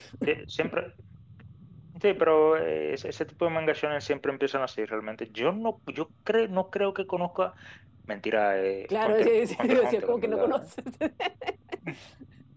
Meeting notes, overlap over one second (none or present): present